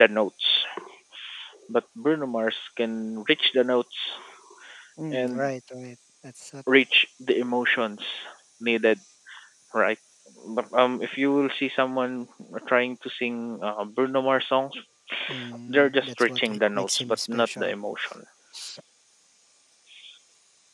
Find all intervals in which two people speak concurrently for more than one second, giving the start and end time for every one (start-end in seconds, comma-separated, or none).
15.7-17.7